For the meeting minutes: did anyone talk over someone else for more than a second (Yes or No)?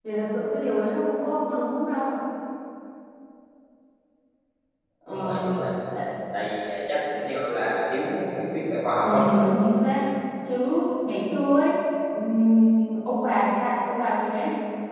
No